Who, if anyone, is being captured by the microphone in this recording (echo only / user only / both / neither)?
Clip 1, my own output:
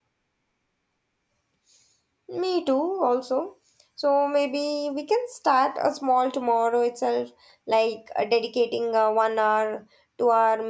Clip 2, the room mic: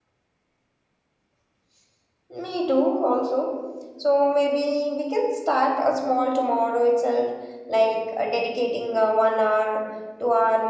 echo only